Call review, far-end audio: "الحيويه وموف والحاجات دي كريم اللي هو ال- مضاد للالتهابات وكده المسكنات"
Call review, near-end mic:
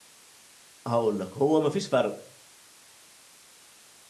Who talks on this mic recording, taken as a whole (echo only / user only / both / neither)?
user only